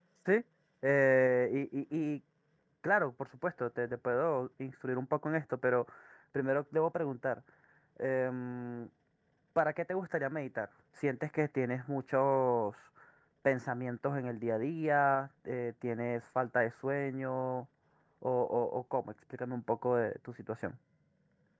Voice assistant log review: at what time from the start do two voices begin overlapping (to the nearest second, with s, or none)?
none